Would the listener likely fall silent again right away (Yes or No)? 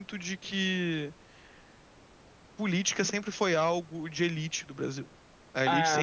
Yes